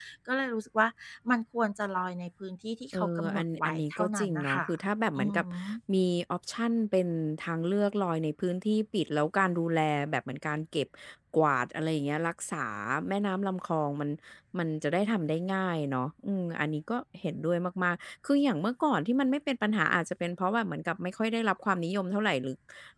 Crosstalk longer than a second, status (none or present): present